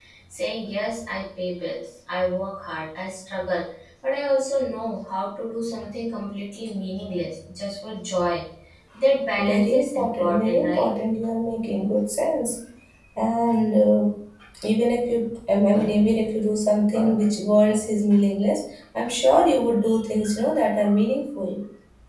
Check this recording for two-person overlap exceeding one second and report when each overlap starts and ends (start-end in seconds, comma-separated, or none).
9.5-10.9